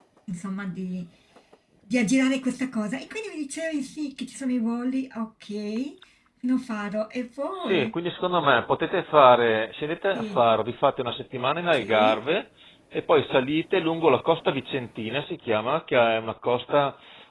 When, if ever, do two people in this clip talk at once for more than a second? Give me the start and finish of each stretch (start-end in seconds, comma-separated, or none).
none